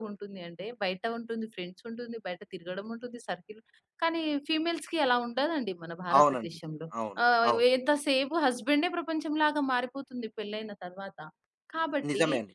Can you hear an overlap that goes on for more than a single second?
No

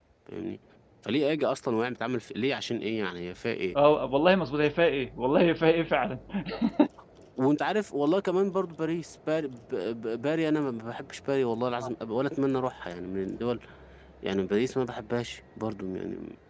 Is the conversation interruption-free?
Yes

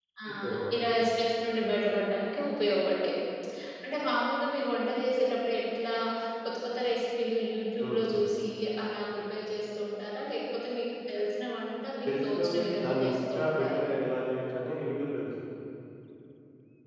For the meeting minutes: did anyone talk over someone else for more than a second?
Yes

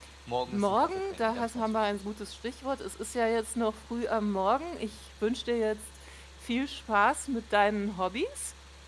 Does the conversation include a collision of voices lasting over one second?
Yes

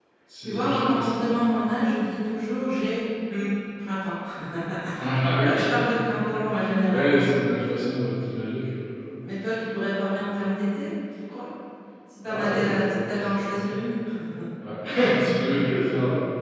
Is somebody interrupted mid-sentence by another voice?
Yes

